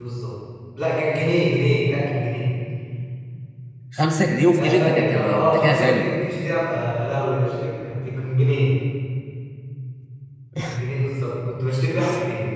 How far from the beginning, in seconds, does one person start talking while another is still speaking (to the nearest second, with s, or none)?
5 s